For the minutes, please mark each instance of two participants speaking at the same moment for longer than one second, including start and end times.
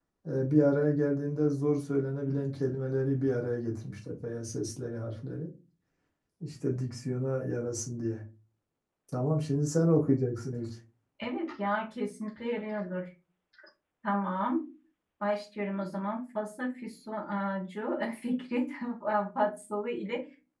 none

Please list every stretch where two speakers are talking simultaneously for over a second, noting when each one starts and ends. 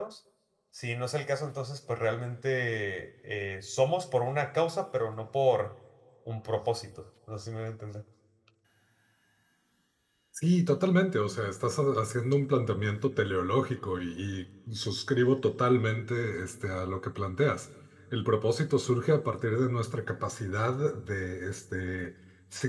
none

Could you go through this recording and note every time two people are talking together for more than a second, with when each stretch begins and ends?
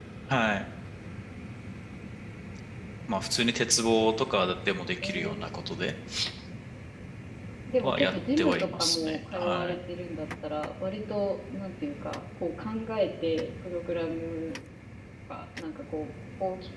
7.8-9.8

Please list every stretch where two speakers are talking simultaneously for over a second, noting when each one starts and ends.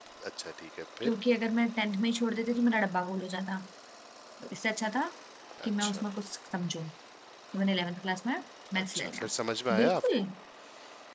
none

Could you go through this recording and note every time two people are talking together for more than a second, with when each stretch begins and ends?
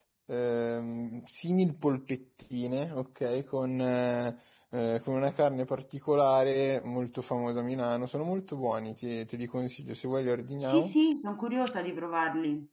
none

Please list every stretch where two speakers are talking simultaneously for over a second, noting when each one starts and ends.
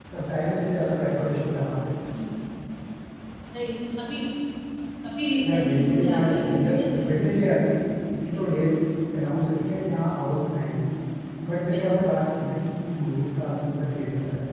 5.4-7.5

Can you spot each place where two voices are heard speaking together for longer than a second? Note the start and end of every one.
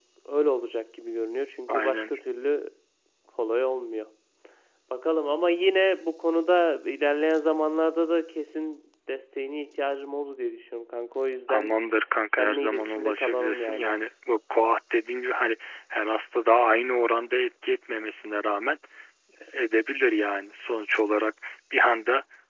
12.3-13.9

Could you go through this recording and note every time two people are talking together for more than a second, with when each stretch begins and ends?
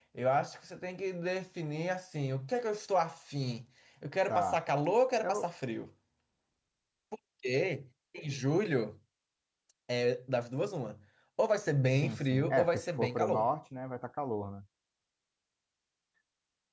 12.0-13.5

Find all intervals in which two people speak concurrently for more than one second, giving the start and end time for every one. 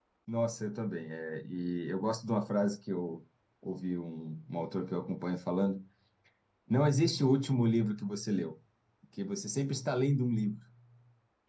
none

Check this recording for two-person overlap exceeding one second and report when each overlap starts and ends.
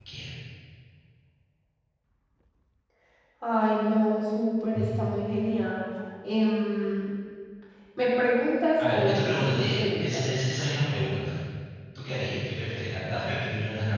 8.8-10.4

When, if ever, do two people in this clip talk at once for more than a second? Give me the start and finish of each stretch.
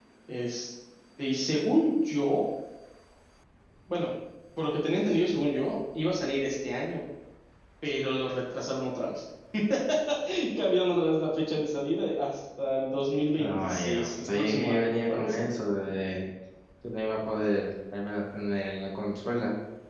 13.4-15.4

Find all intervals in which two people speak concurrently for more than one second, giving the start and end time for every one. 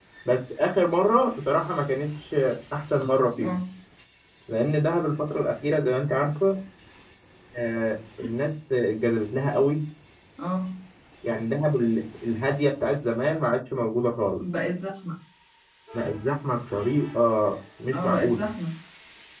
none

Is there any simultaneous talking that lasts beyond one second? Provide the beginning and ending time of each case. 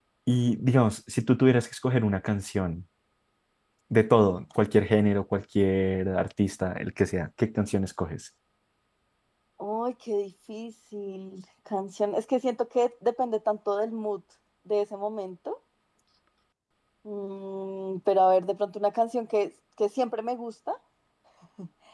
none

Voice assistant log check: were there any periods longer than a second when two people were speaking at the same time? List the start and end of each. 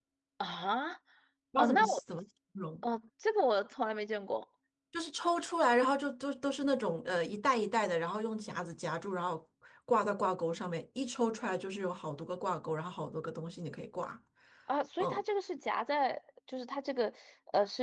none

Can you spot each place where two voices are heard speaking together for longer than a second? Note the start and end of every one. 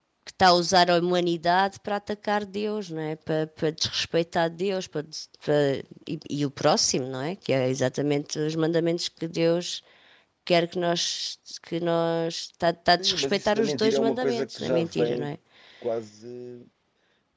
13.0-15.3

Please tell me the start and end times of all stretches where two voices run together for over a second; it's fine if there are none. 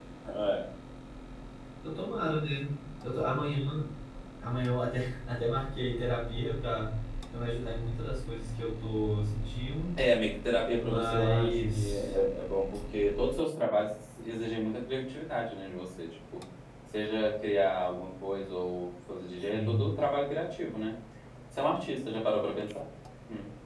10.8-12.1

